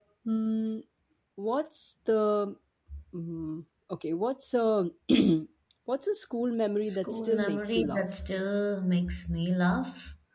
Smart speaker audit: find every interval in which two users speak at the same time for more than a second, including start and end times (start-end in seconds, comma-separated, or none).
6.8-8.1